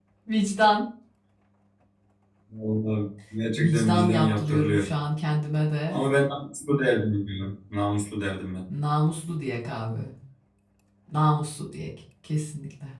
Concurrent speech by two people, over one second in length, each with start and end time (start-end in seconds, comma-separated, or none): 3.6-4.8